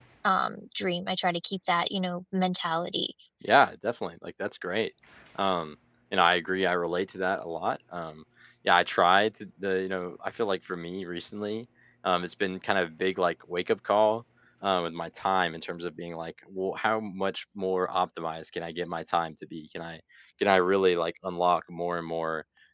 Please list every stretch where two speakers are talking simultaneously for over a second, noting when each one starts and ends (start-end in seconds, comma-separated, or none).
none